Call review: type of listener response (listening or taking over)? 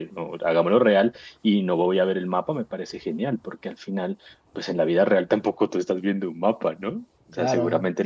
listening